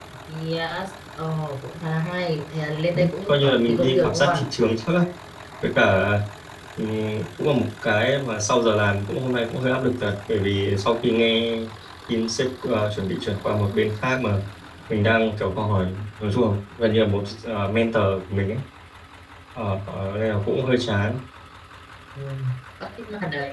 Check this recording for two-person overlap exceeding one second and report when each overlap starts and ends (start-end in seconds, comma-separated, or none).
2.9-4.2